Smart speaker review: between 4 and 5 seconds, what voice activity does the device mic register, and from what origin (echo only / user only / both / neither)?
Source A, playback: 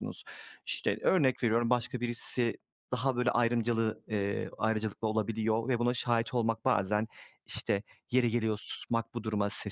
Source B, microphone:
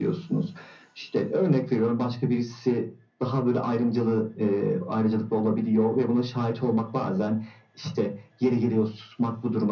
echo only